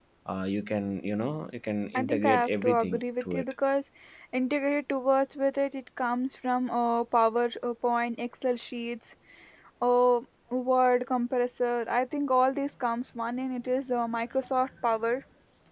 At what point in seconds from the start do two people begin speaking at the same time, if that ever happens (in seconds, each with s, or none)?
1.9 s